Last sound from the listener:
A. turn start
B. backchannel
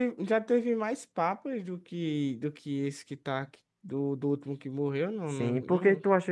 A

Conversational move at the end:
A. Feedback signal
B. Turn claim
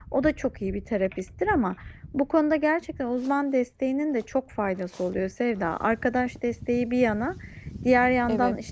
A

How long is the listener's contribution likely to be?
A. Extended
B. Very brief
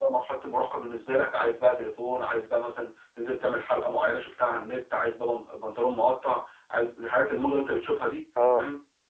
B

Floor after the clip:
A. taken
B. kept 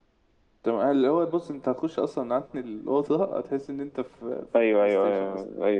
A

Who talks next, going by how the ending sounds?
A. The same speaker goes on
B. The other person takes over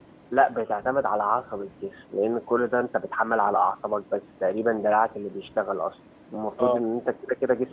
A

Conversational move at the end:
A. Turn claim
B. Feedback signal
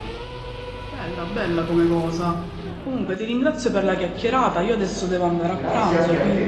A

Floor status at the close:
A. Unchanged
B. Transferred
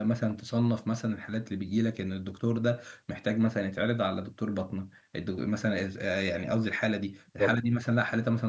A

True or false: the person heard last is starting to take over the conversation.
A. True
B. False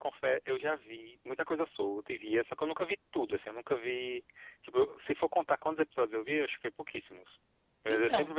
B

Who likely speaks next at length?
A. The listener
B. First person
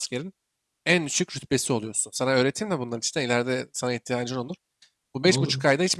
B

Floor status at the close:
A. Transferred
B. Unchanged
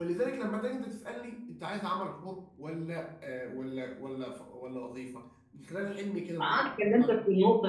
A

